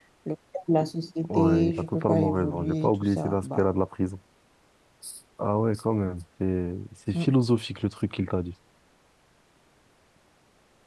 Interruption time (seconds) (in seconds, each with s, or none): 1.2 s